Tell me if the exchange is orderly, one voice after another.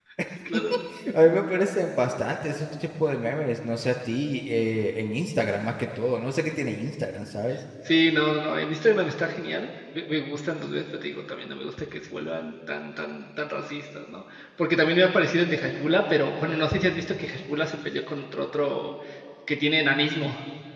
Yes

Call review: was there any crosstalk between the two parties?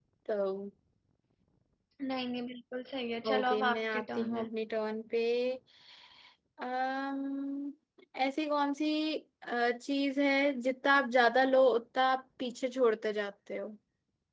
Yes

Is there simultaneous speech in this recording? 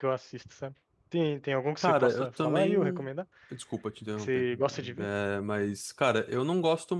Yes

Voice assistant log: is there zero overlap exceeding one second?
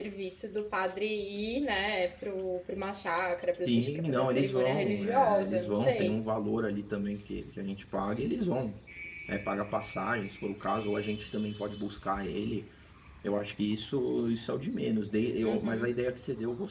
No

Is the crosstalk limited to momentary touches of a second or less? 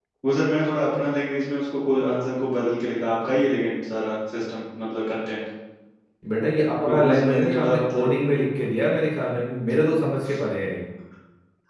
No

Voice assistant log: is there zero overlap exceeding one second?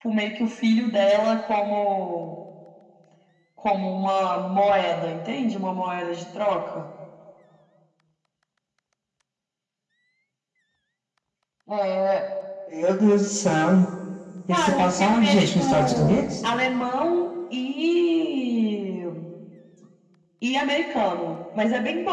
No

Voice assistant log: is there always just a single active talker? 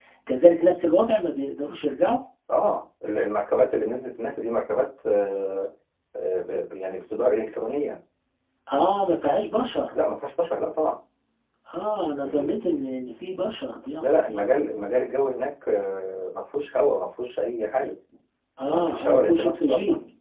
No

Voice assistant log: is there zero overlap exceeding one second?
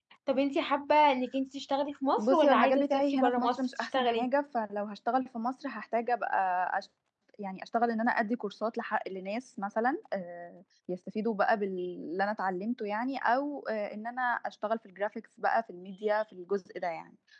No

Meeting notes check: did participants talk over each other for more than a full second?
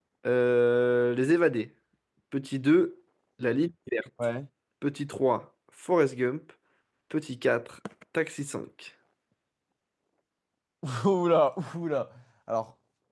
No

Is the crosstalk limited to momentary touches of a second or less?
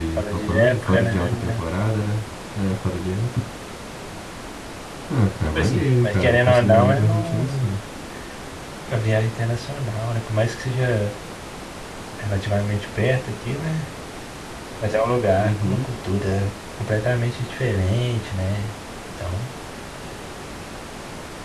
No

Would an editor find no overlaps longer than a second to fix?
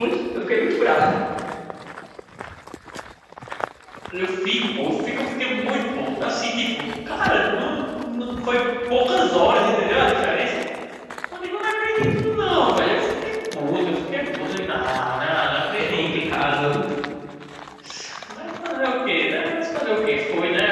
Yes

